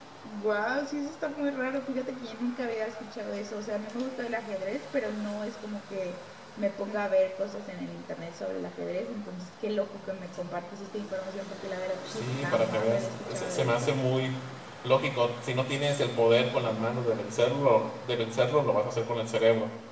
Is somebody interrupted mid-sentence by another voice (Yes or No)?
Yes